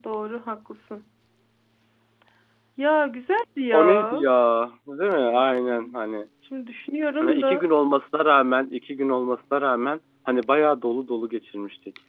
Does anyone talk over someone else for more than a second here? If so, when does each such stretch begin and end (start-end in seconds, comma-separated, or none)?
none